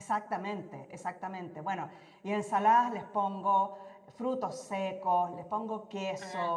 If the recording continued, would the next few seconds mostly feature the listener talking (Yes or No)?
No